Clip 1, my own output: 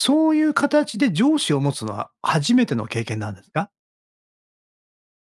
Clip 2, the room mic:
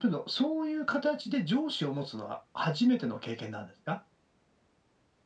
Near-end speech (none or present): none